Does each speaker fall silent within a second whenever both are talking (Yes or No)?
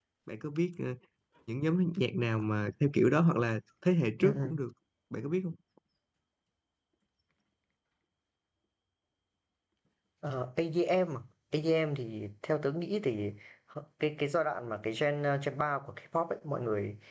Yes